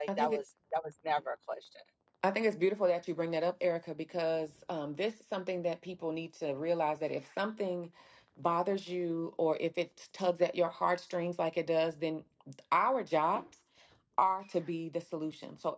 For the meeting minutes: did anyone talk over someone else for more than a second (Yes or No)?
No